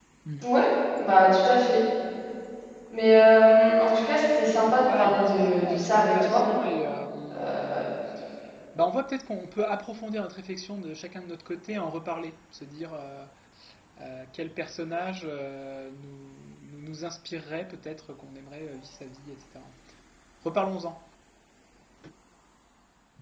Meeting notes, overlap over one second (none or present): present